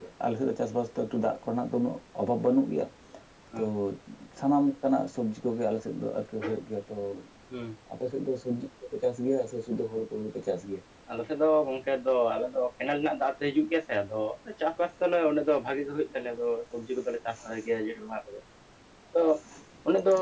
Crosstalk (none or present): none